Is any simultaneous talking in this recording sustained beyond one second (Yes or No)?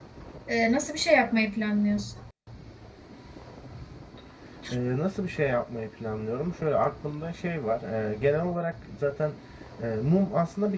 No